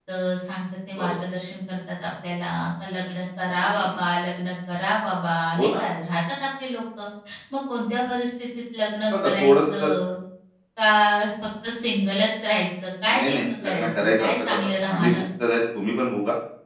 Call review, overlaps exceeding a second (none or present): present